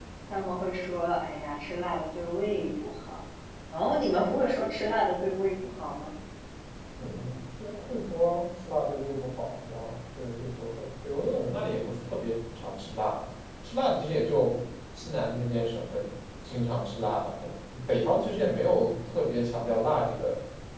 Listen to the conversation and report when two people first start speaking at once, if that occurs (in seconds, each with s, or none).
none